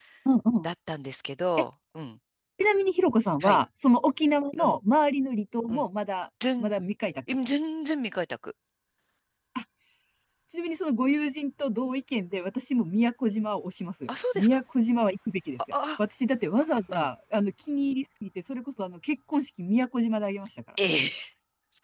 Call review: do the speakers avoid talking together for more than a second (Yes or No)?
Yes